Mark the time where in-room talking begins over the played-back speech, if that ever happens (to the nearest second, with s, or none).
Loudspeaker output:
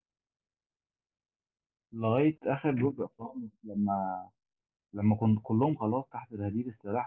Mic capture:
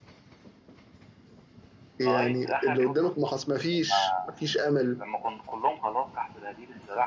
2 s